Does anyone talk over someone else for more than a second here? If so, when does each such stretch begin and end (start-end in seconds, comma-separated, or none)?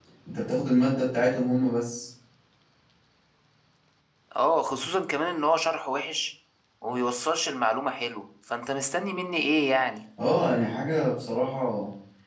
none